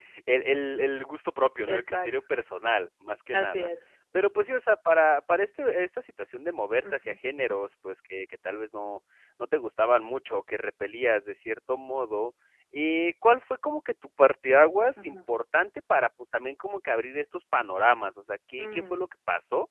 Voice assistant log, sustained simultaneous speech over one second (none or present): none